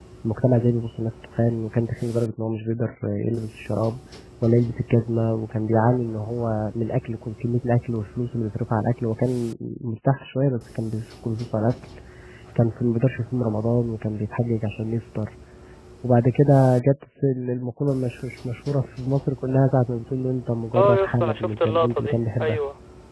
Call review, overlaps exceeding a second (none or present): present